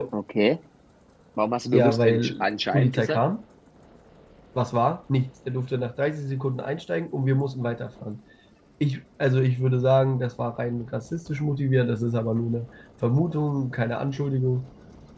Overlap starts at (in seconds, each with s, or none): 1.7 s